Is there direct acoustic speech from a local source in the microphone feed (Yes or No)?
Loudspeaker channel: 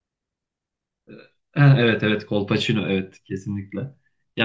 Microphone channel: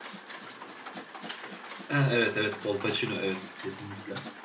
No